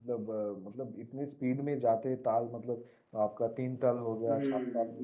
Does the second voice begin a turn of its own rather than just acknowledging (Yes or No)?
Yes